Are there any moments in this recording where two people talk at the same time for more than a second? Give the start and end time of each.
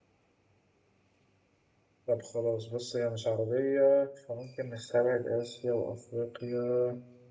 none

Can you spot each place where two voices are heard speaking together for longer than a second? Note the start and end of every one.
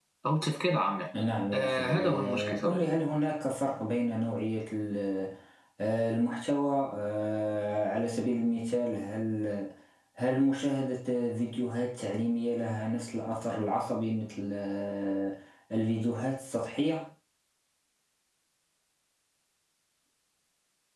1.5-2.8

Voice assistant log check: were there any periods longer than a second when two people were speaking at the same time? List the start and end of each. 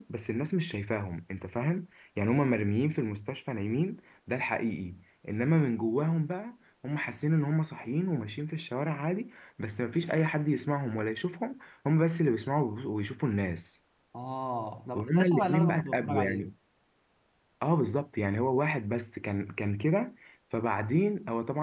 14.9-16.5

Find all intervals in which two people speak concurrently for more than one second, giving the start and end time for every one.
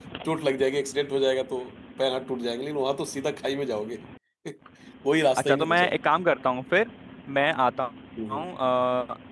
none

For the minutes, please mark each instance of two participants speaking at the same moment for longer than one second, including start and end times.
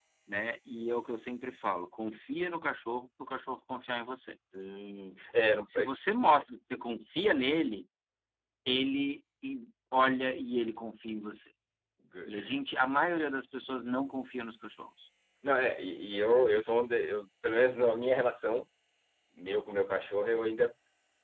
none

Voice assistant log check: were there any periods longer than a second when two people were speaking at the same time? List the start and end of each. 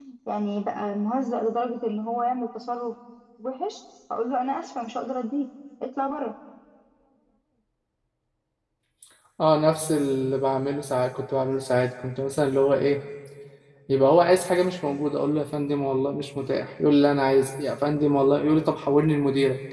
none

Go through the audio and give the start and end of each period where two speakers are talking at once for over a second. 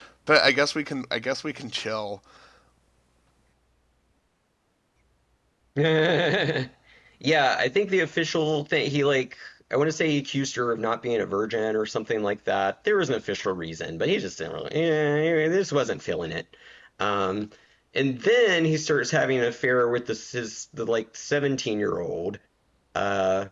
none

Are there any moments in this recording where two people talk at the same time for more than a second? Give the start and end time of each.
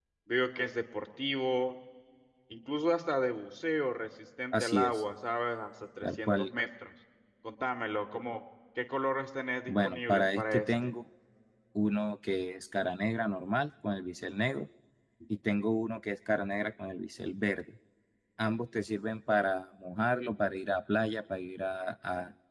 9.7-10.9

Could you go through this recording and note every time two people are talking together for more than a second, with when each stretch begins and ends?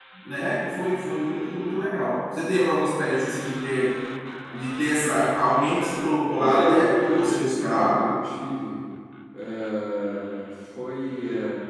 6.3-8.1

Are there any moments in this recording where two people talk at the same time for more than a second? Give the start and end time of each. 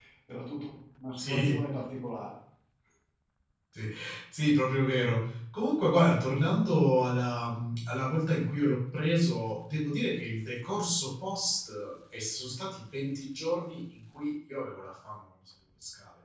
none

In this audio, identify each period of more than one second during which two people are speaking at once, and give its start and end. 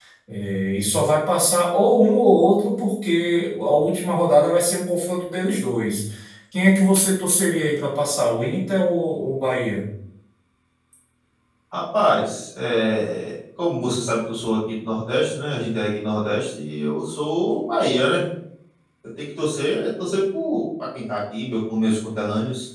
none

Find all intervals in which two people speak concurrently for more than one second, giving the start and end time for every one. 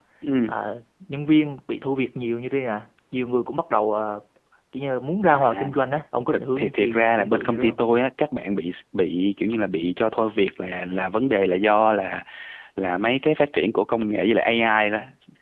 6.3-7.8

